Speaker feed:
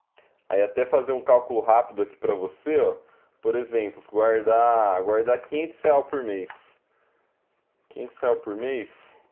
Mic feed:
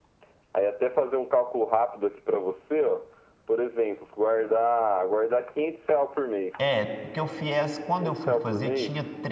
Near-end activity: present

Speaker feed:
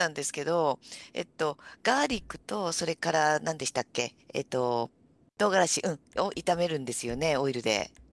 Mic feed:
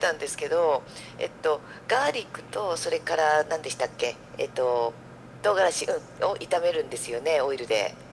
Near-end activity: none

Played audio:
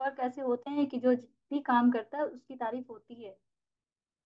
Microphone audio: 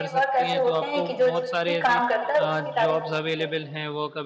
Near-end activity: present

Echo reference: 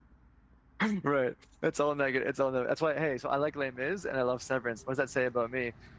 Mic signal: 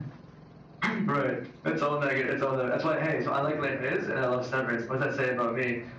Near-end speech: present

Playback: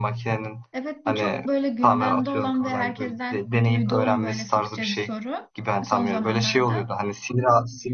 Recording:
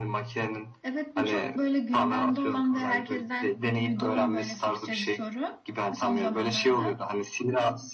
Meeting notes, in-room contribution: none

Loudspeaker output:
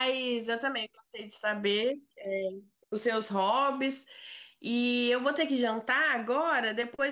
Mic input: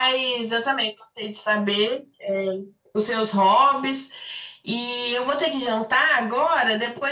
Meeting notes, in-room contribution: none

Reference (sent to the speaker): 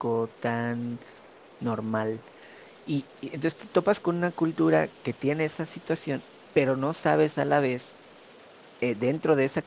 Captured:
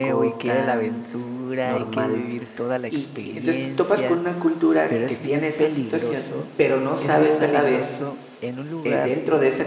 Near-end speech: present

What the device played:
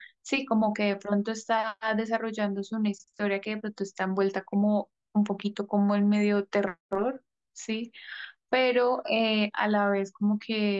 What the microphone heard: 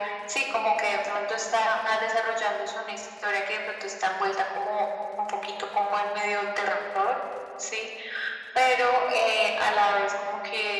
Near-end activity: none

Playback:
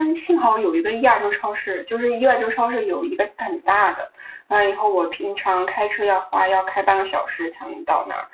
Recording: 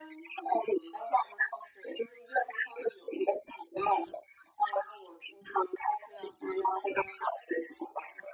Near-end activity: none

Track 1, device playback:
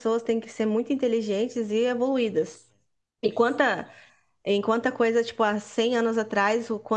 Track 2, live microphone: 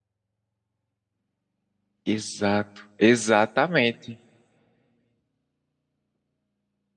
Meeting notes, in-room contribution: present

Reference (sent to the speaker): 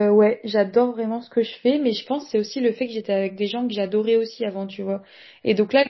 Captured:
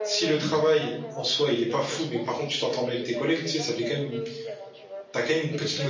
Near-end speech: present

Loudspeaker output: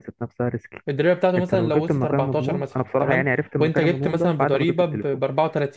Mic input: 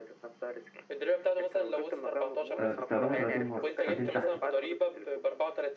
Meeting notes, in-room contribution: present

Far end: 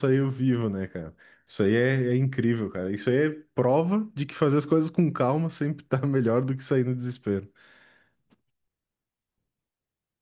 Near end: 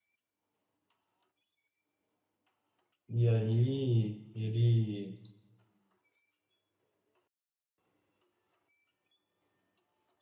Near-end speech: present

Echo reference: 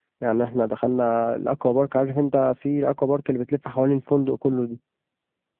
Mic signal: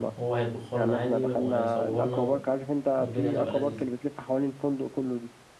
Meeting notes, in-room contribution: present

